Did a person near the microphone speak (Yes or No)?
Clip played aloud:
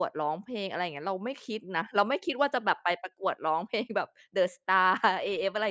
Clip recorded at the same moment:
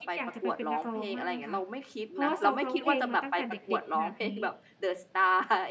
Yes